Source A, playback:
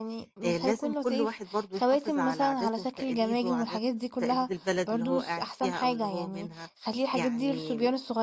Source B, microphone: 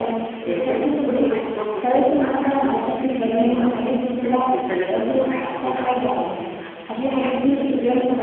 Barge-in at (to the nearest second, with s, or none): none